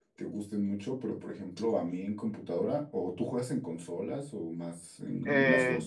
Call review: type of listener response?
taking over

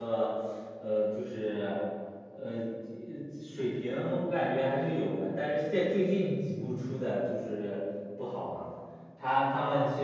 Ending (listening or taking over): listening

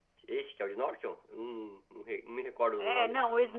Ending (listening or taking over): taking over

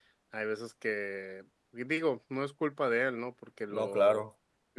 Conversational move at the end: listening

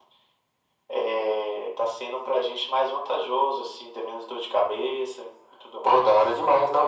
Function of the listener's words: taking over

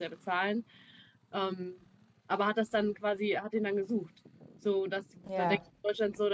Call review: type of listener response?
listening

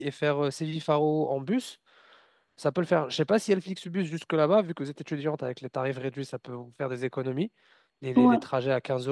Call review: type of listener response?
listening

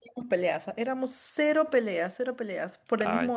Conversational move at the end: listening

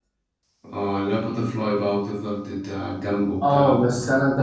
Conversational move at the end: taking over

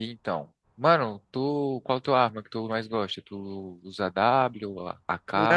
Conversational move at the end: taking over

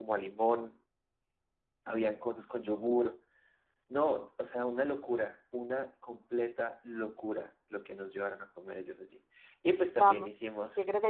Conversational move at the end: taking over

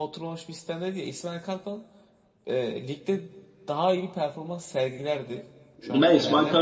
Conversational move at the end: taking over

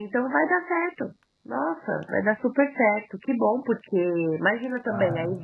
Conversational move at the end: listening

